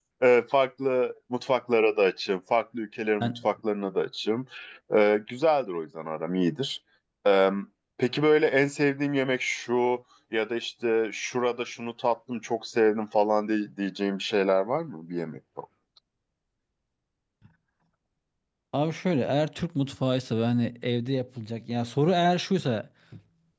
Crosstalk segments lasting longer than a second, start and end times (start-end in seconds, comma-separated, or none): none